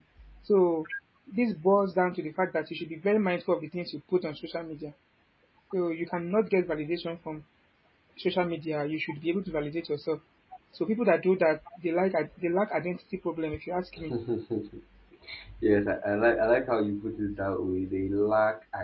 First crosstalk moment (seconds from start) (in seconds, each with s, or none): none